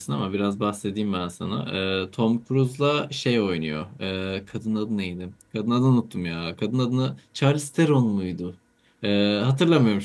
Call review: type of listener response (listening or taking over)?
listening